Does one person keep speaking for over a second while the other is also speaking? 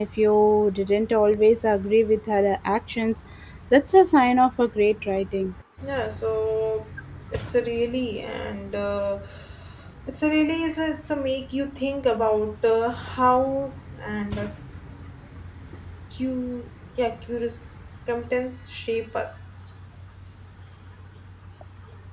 No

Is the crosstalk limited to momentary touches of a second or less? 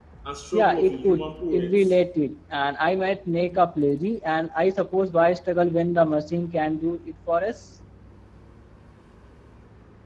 No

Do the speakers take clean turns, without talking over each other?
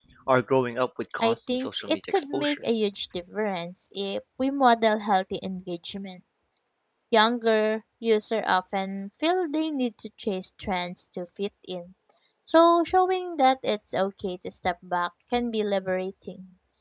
No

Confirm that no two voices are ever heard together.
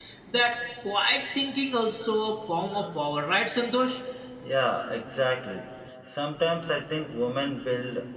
Yes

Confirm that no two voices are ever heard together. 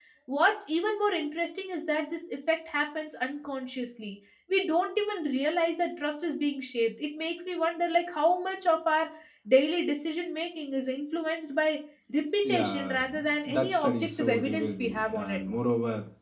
No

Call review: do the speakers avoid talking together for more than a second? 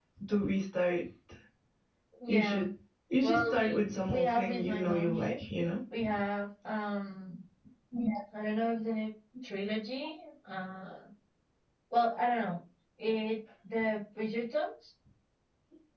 No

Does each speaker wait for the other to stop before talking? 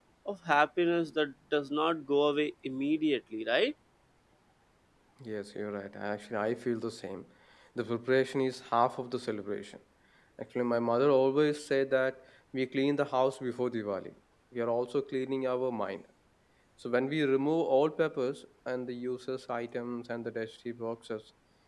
Yes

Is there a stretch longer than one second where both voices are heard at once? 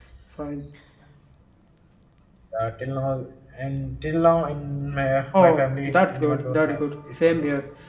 Yes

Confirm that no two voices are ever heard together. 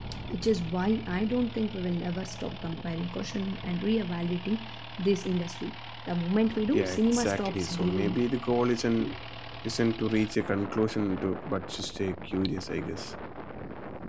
No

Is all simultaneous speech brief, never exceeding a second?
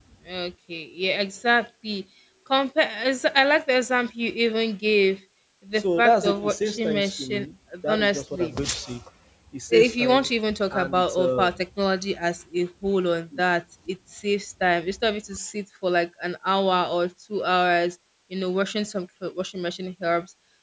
No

